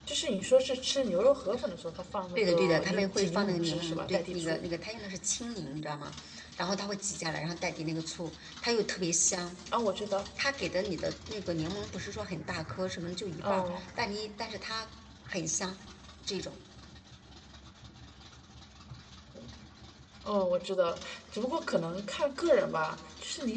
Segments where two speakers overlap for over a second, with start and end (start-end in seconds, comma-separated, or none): 2.4-4.6